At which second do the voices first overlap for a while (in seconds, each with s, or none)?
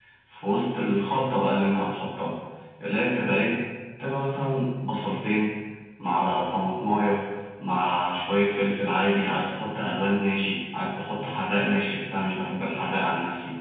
none